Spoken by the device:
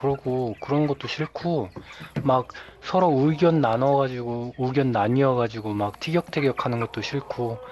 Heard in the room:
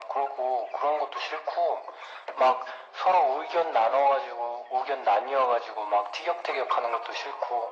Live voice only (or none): none